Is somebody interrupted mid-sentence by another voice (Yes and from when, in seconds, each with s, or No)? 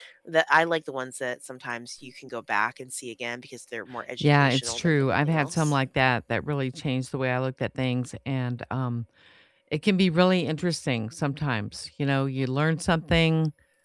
Yes, from 4.2 s